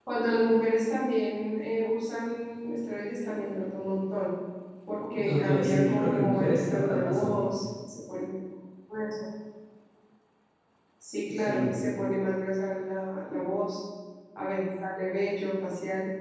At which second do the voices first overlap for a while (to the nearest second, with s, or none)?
5 s